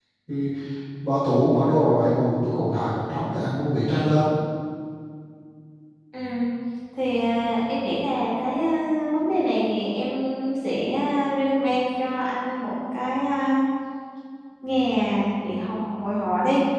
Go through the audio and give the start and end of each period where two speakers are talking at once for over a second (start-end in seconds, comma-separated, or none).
none